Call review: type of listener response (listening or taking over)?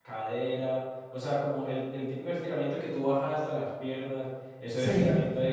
listening